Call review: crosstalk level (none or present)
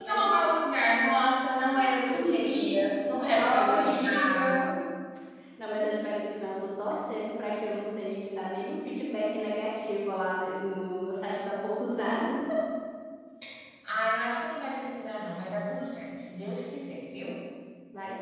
present